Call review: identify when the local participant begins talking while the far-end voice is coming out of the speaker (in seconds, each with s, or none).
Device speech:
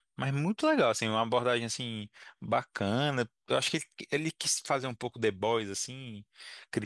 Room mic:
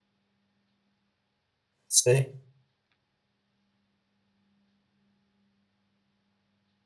1.9 s